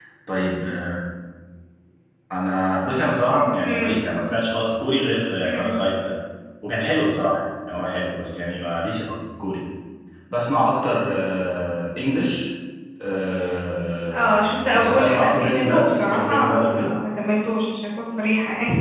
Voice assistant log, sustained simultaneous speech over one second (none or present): present